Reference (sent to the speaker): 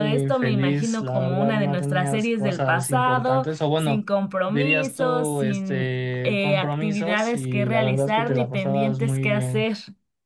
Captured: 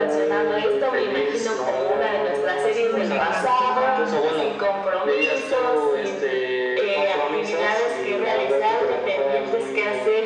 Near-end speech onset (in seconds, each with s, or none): 2.8 s